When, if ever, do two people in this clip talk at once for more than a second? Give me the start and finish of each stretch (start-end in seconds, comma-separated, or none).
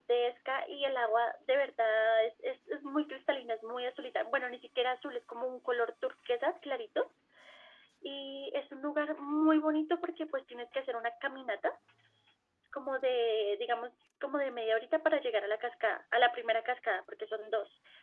none